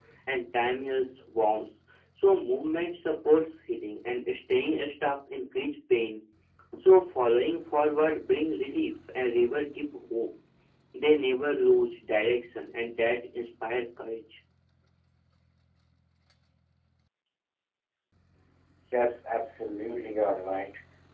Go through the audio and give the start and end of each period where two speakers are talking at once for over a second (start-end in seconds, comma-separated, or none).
none